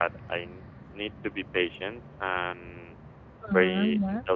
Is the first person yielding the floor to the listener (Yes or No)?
No